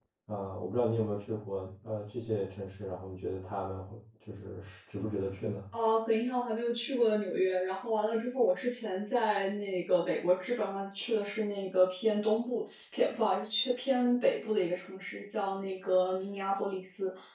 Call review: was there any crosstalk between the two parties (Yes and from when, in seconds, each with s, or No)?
No